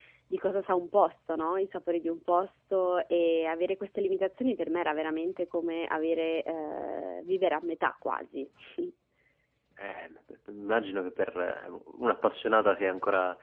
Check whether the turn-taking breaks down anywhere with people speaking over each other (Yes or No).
No